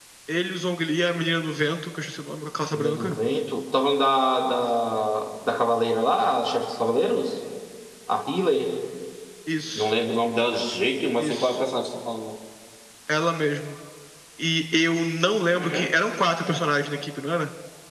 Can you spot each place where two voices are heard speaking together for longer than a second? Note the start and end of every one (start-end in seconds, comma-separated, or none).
none